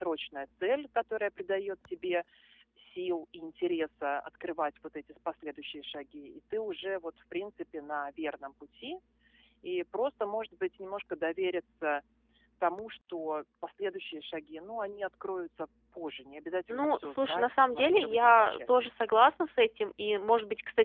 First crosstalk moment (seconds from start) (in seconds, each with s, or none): 16.7 s